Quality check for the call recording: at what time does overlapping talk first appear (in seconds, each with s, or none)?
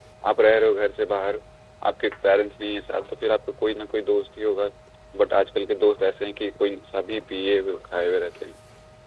none